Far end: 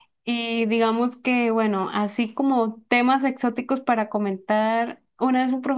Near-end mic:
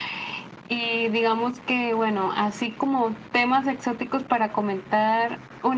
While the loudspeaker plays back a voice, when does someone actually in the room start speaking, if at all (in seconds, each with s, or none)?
none